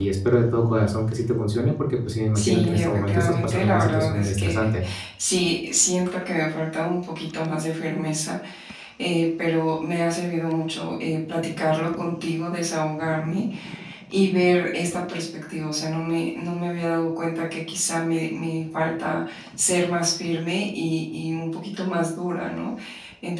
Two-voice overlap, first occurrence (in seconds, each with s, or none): 2.3 s